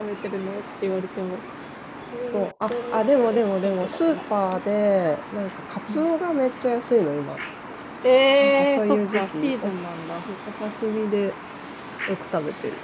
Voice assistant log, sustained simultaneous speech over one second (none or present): present